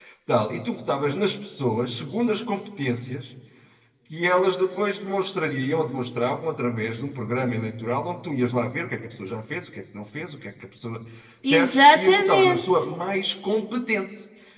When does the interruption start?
11.5 s

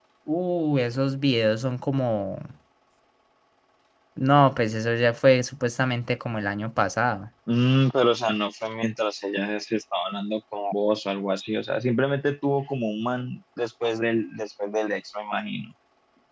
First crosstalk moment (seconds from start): none

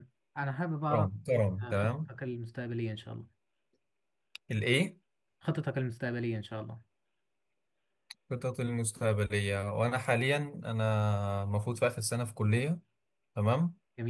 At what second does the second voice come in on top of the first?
0.9 s

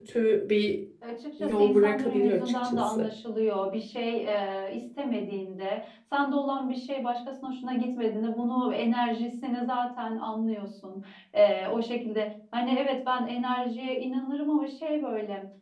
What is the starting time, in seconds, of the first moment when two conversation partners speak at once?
1.4 s

